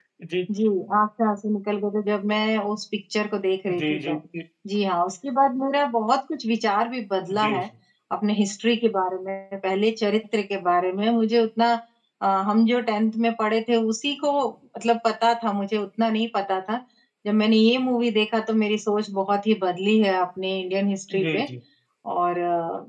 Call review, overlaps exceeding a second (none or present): none